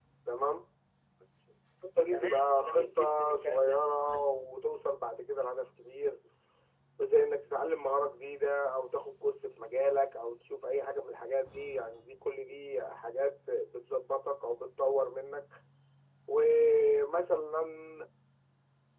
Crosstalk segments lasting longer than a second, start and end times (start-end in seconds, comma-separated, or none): 2.1-4.3